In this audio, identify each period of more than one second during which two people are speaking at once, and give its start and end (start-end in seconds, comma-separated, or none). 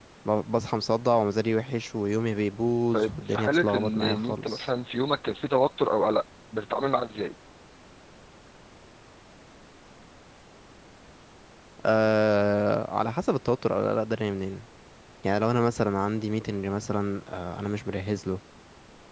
2.9-4.6